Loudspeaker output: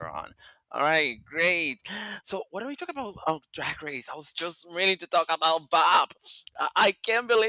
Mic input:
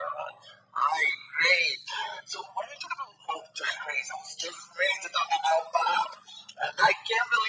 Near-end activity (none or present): none